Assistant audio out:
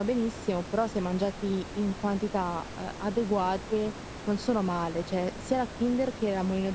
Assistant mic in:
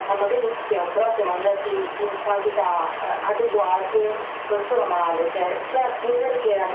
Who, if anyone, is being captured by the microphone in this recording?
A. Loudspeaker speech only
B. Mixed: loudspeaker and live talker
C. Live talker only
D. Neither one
A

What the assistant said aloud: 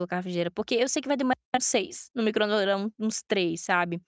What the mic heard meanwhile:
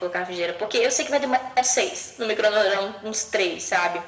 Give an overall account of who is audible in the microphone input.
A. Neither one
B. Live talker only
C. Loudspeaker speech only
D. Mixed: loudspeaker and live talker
C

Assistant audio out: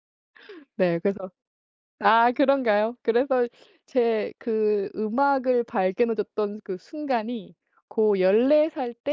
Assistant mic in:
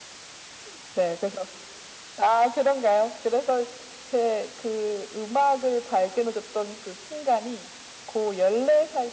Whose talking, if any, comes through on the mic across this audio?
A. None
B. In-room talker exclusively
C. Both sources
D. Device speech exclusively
D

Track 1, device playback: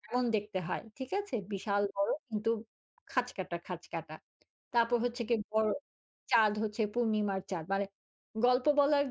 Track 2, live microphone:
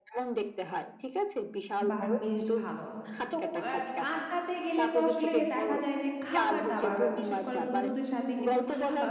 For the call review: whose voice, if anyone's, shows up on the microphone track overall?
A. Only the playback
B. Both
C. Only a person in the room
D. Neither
B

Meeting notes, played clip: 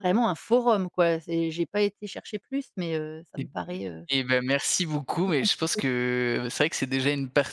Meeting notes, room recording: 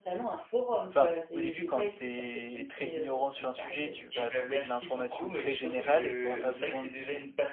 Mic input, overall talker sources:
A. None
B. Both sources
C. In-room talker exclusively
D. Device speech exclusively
B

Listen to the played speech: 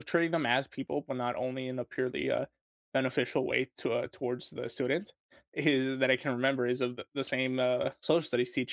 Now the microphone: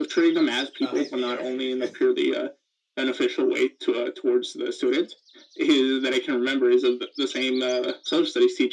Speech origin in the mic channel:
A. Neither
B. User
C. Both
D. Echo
C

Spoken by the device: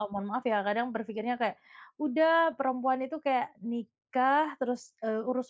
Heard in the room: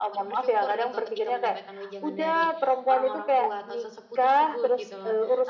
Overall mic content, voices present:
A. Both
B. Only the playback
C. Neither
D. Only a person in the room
A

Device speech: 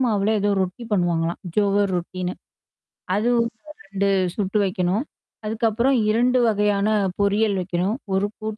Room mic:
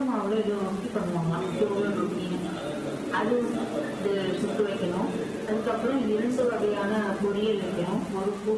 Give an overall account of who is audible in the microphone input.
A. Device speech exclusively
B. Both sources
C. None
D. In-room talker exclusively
B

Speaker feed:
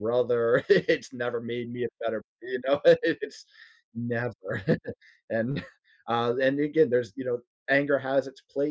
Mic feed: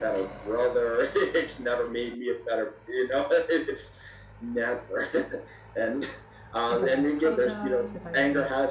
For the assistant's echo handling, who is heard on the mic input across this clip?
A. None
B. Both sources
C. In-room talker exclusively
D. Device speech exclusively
B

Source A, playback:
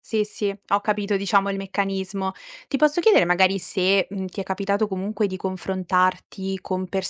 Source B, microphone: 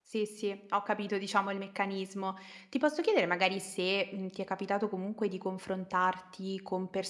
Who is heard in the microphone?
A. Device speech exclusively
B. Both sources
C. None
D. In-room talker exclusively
A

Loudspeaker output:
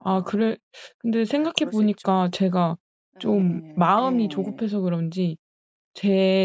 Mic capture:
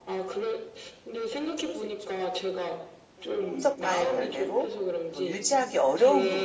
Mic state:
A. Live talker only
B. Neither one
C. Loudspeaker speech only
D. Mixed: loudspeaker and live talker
D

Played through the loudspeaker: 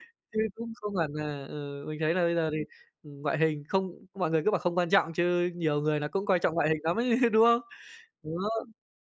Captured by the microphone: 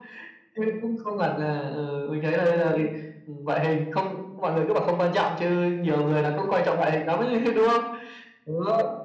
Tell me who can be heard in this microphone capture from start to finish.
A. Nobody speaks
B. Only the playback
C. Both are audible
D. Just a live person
B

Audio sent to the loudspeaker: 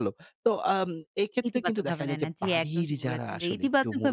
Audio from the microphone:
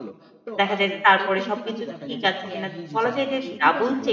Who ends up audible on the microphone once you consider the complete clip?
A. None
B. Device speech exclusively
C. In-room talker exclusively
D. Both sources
D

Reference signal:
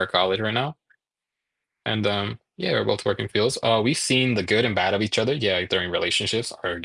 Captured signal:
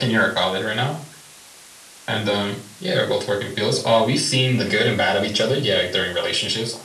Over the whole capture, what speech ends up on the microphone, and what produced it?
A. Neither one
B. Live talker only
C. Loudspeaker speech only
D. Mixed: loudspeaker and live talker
D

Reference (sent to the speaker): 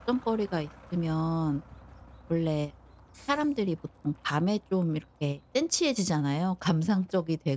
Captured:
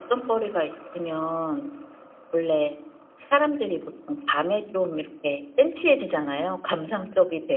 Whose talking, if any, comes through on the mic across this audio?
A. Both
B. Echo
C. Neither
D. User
B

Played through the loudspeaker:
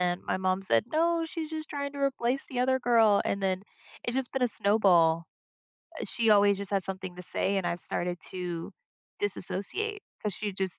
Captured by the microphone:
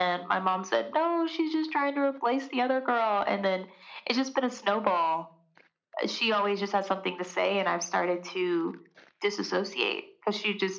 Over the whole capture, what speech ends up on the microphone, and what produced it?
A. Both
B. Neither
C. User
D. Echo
D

